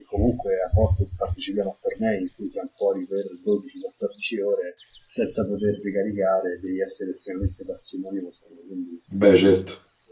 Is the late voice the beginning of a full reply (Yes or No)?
No